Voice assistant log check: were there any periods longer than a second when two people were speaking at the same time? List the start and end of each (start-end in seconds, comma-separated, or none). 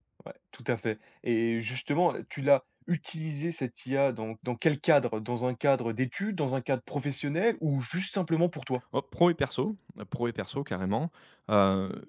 none